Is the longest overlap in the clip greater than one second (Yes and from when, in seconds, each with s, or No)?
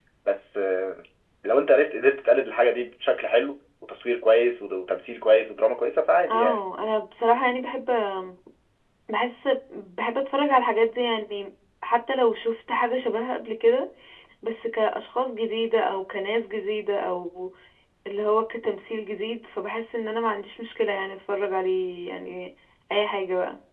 No